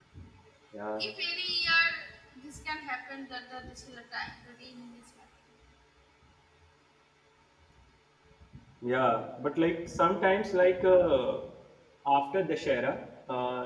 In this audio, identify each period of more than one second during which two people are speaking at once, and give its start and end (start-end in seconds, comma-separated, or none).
none